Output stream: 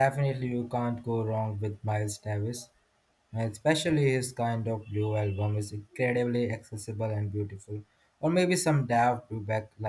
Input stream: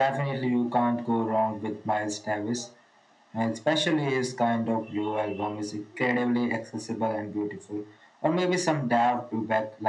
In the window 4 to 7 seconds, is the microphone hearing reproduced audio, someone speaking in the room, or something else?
echo only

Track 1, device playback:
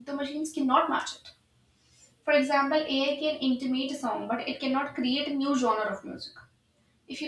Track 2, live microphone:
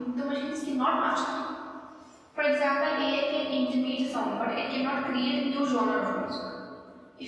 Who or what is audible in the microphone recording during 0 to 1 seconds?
echo only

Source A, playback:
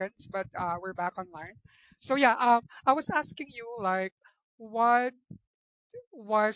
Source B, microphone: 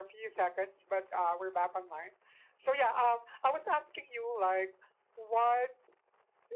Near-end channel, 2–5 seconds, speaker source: echo only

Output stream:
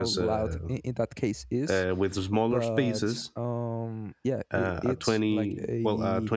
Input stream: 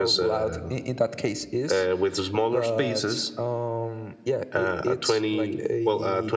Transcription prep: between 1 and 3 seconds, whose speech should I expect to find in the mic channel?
echo only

